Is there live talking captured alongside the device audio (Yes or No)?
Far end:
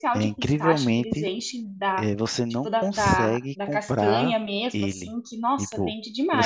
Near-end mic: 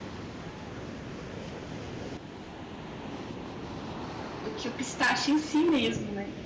Yes